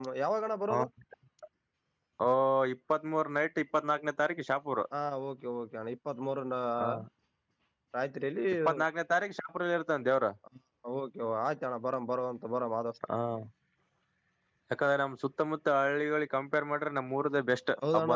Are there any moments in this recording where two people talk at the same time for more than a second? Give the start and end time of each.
none

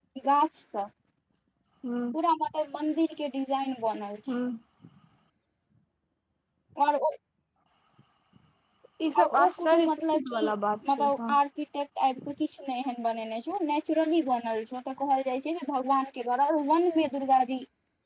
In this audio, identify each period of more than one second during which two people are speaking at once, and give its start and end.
9.2-10.5

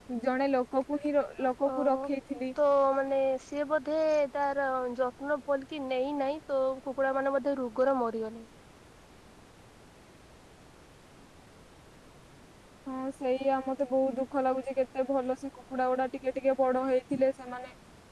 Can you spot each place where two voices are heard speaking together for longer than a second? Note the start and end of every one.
none

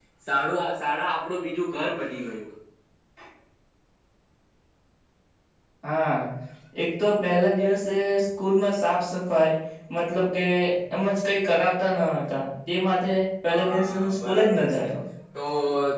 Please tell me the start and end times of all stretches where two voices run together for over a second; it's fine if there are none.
13.5-14.9

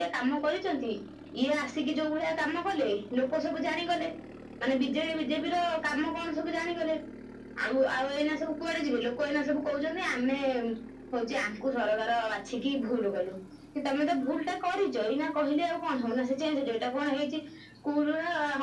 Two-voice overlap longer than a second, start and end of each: none

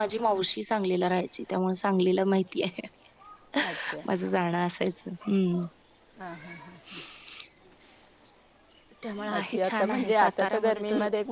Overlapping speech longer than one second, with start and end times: 9.3-10.8

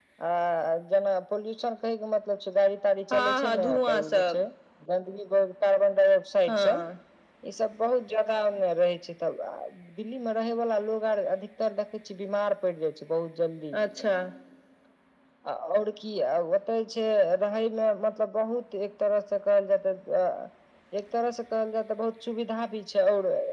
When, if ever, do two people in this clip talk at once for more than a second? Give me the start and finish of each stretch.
3.1-4.4

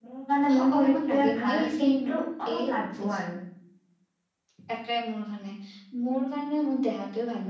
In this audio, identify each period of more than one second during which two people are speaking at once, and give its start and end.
0.6-1.9

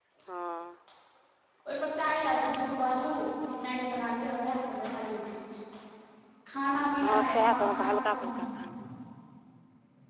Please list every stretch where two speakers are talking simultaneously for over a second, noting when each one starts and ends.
7.0-8.4

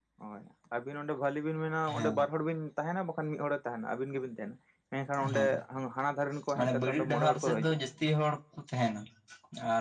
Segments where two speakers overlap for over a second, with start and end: 6.6-7.8

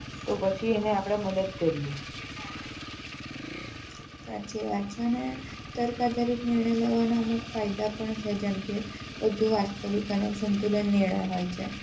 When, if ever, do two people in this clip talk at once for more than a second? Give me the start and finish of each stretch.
none

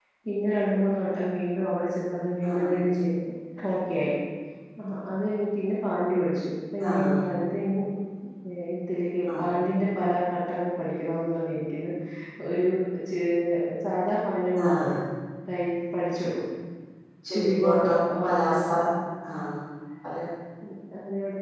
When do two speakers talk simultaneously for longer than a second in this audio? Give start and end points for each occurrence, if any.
17.3-18.6

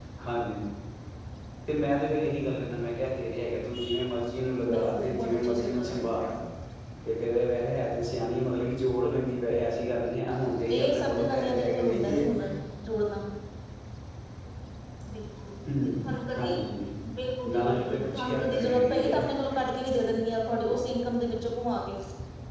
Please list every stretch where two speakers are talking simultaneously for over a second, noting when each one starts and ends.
4.7-6.1, 10.8-12.2, 17.5-19.2

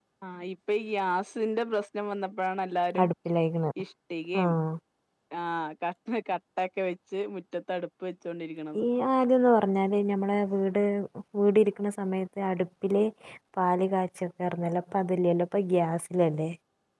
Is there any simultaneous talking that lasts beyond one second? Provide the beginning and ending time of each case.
none

